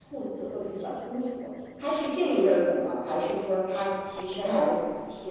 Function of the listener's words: listening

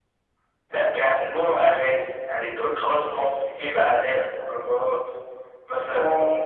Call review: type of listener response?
taking over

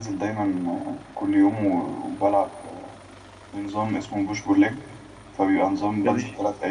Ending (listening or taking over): listening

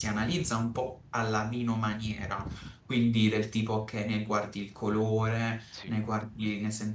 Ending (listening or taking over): listening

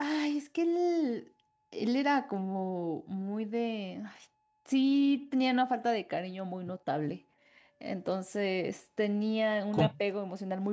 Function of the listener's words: listening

